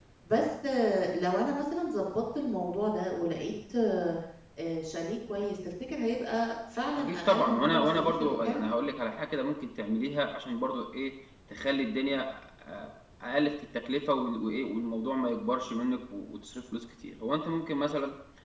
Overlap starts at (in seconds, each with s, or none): 7.0 s